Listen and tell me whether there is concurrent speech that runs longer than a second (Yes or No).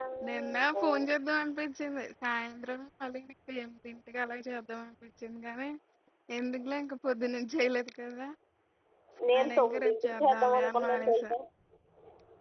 Yes